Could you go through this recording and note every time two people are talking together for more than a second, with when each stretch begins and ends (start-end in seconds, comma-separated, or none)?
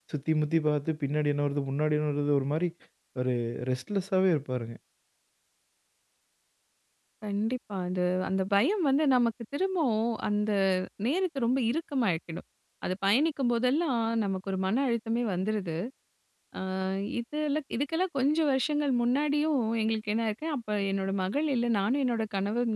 none